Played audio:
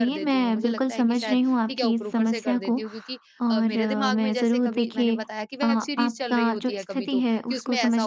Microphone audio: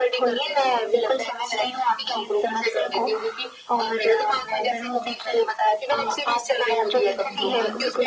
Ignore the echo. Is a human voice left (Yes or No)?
Yes